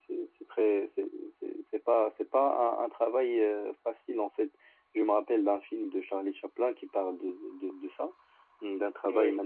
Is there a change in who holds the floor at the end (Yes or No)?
No